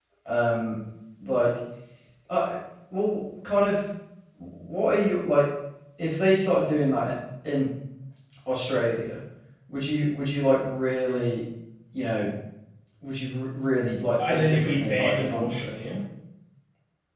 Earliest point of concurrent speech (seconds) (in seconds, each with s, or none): 14.1 s